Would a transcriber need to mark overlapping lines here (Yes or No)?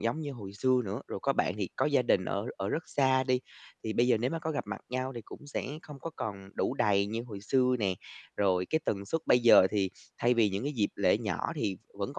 No